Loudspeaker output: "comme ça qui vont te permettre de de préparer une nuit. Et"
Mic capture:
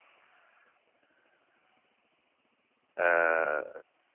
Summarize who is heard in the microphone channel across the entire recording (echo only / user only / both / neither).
user only